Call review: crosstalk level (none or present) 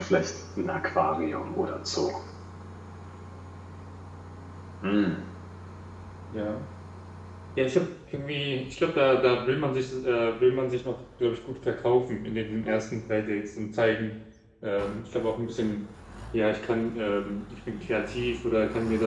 none